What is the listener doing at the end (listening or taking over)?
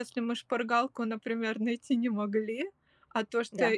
listening